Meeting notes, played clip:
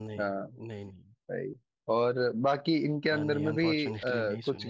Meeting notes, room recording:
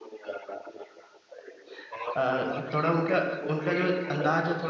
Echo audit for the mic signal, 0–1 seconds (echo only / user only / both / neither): echo only